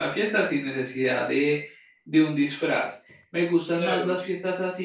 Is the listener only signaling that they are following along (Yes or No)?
Yes